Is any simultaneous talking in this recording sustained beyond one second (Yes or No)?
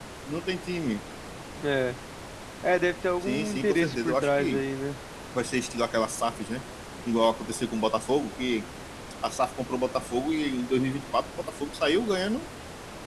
Yes